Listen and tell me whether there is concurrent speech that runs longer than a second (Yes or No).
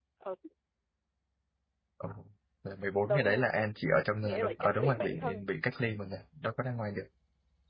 Yes